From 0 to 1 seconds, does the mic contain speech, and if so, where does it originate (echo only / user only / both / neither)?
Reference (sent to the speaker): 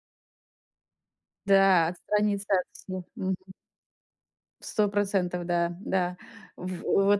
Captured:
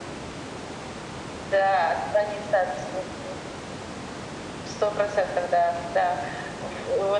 neither